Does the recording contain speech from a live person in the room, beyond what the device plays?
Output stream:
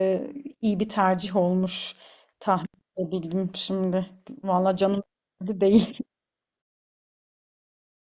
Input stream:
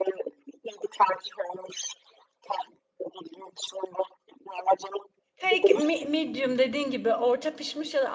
Yes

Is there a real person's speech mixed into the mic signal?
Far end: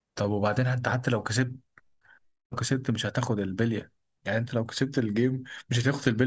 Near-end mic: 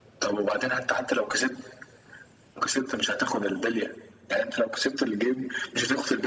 No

